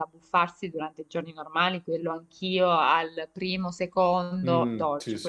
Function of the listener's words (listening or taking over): taking over